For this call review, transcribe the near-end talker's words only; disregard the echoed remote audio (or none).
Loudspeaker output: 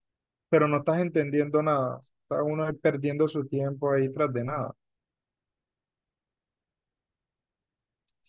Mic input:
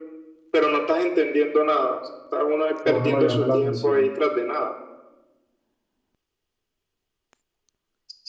que a uno lo llame la atención,